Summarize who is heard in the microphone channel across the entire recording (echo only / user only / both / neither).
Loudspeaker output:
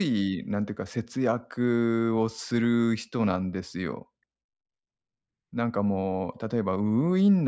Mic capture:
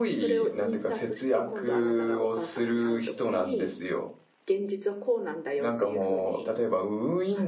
both